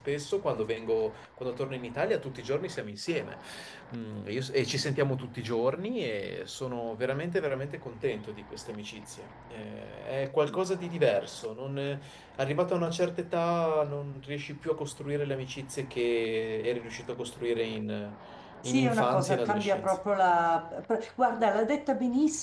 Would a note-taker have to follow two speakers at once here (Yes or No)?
Yes